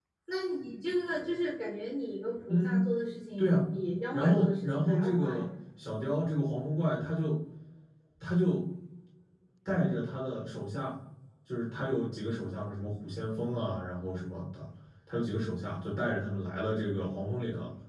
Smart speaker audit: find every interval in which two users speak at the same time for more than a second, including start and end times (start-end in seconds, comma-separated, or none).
4.1-5.5